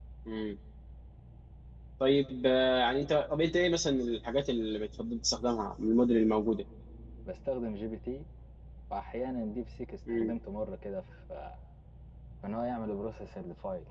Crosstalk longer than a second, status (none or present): none